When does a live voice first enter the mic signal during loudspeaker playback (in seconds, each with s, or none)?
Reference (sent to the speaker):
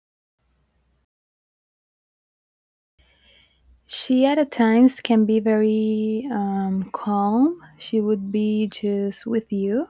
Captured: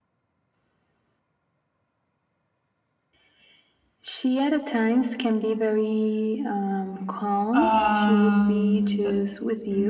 7.5 s